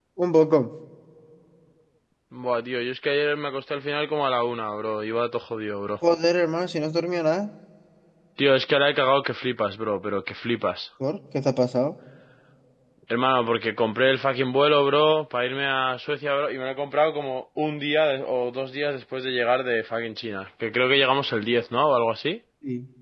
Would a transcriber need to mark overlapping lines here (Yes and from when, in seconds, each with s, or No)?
No